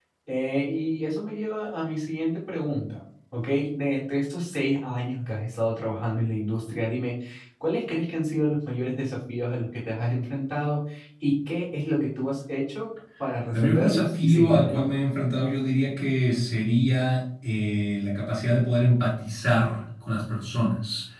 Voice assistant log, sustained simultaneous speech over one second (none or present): present